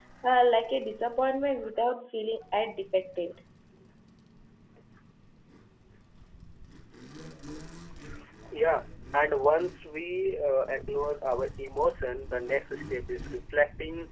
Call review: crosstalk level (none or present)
none